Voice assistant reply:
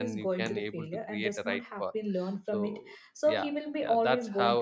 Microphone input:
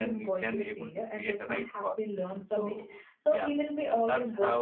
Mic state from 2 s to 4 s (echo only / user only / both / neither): echo only